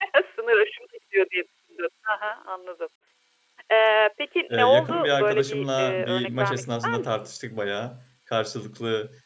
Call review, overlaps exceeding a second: present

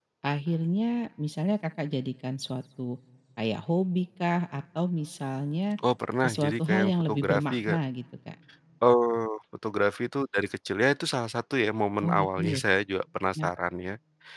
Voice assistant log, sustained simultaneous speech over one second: present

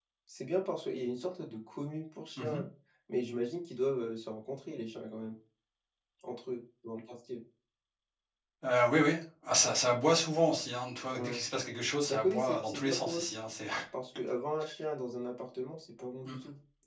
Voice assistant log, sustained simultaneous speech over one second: present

